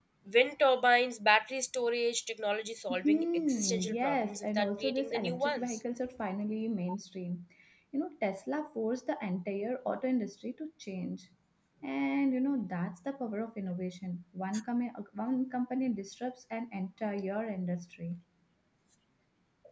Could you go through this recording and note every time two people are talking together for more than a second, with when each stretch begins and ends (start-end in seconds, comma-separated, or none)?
3.0-5.8